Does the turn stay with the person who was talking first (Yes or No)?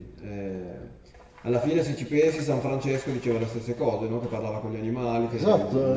No